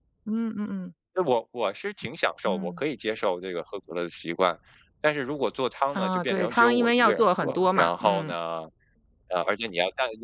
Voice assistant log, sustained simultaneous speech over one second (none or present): present